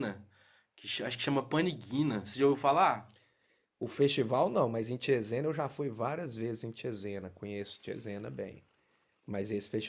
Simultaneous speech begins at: none

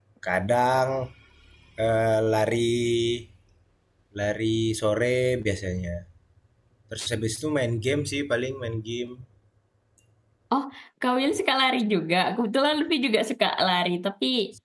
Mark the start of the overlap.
none

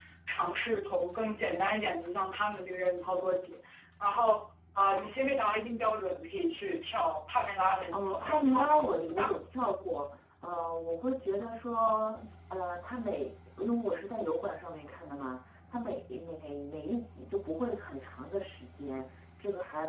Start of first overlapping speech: 7.9 s

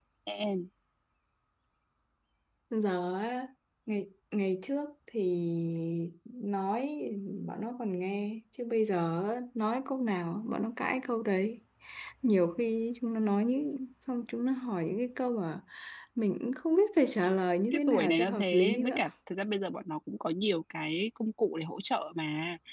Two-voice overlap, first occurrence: 17.7 s

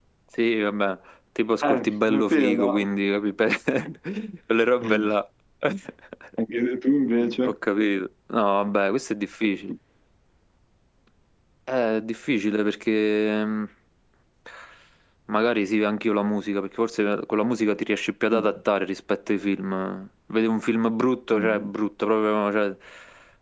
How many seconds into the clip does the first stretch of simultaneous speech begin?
1.6 s

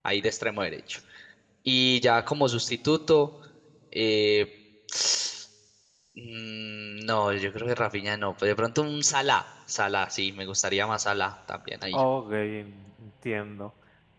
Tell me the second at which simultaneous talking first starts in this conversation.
none

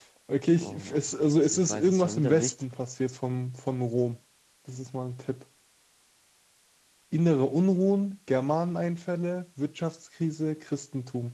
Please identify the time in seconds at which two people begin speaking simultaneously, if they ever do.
0.6 s

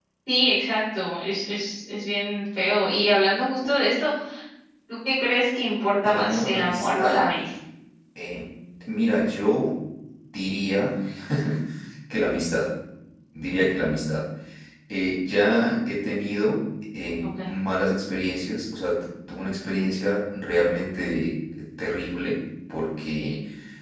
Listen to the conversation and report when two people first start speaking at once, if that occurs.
6.0 s

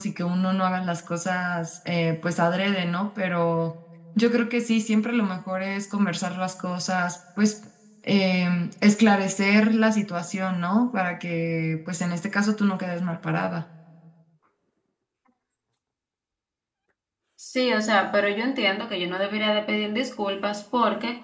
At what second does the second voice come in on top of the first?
none

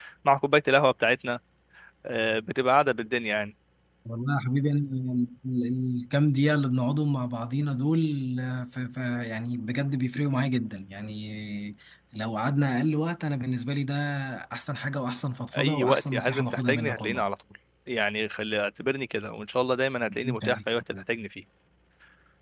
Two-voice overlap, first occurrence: 15.5 s

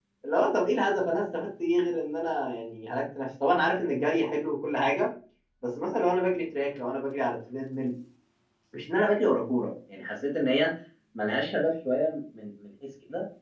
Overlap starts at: none

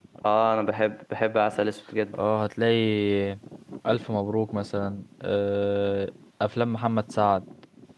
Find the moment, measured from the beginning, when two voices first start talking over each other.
none

